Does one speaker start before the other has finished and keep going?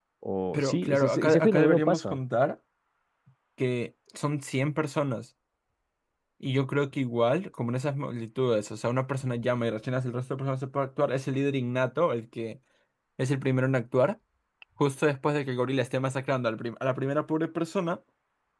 Yes, from 0.5 s

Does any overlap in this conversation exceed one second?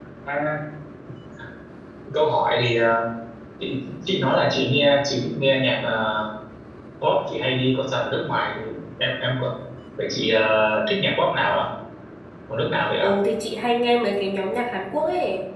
No

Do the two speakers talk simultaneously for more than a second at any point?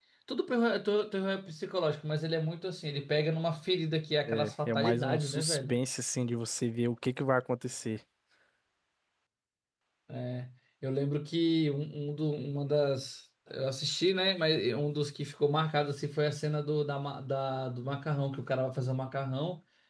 Yes, from 4.3 s

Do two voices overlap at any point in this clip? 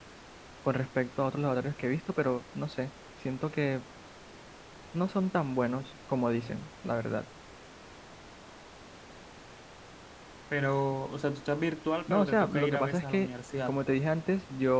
Yes, from 12.1 s

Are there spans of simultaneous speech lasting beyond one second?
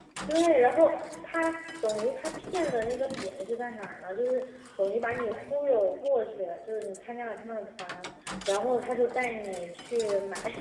No

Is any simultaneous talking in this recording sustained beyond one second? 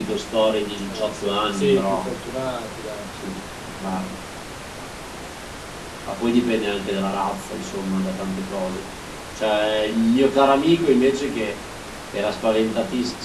Yes, from 0.9 s

